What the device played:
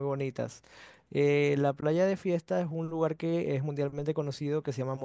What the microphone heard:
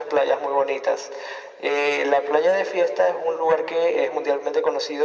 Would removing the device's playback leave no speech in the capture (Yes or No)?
Yes